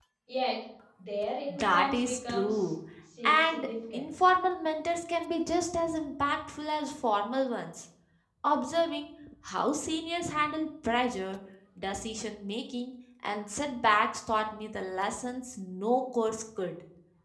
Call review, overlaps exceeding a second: present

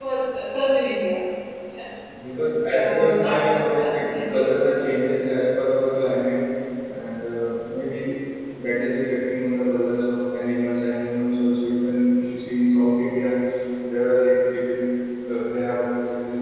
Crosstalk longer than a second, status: present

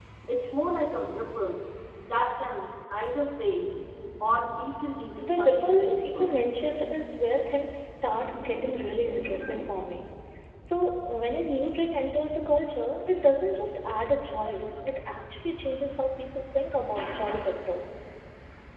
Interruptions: present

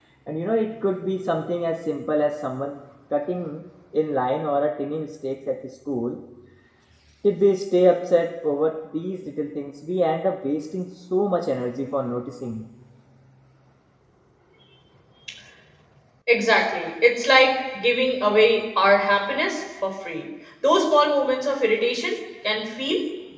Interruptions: none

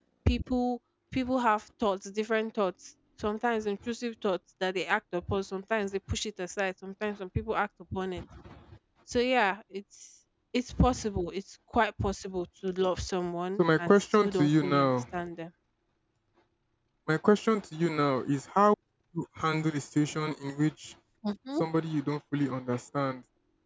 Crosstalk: present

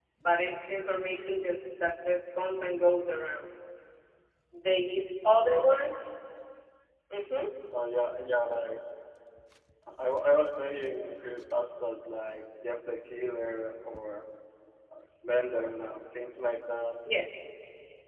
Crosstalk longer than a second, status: none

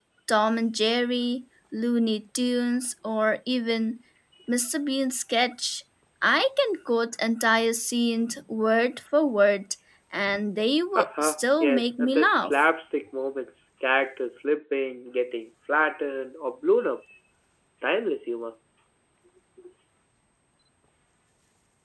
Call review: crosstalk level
present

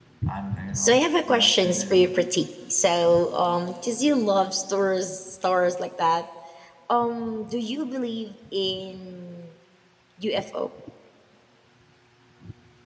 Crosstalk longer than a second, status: present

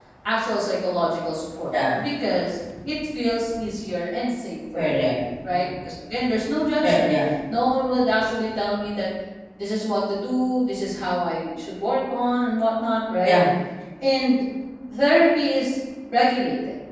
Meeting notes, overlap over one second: none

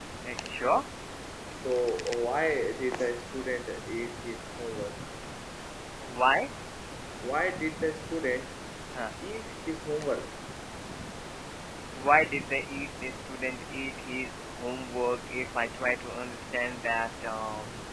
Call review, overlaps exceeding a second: none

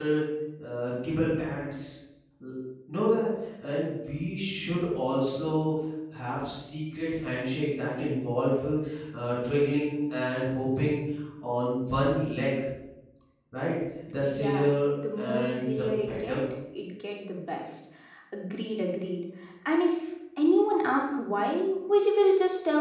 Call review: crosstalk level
present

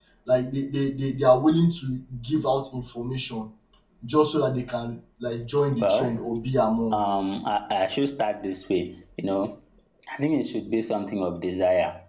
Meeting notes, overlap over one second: none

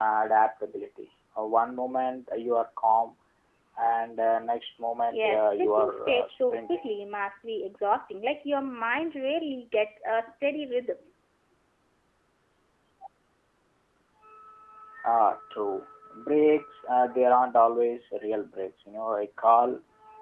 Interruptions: present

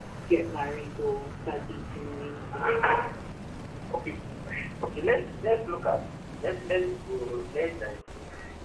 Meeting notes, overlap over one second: none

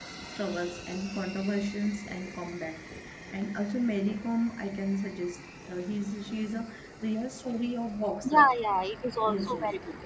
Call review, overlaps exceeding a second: none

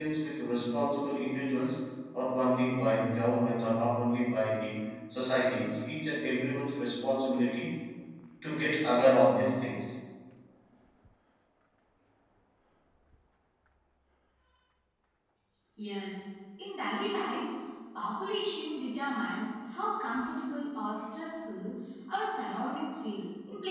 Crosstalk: none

